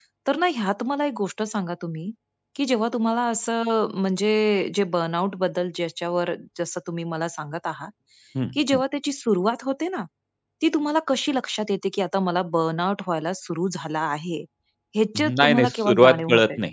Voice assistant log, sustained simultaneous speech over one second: present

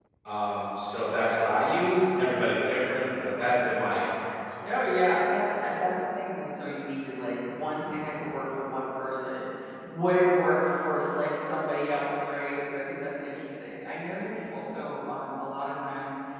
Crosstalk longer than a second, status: none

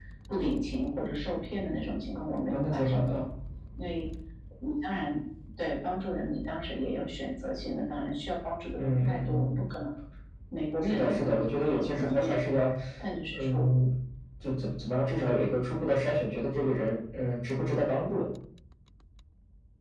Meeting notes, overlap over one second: present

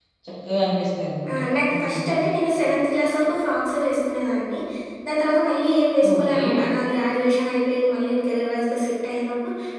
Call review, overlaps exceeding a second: none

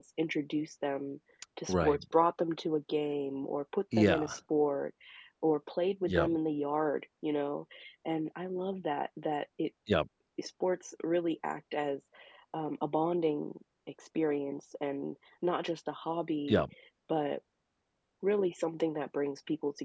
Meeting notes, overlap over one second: none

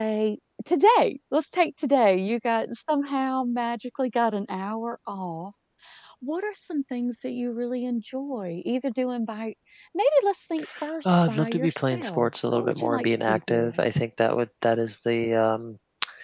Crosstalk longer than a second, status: present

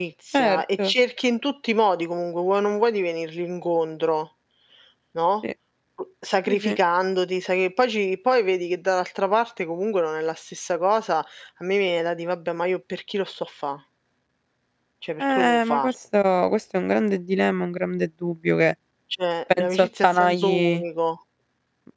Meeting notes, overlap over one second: present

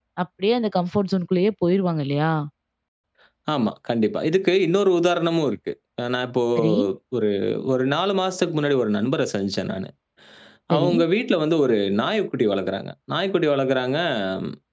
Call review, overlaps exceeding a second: none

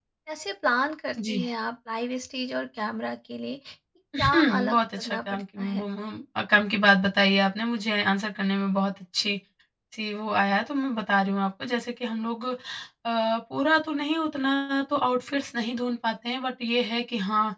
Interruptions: present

